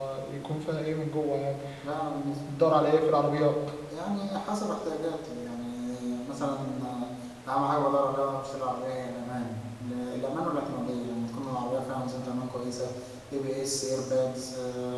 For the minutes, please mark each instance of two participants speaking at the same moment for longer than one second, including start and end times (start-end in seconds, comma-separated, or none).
none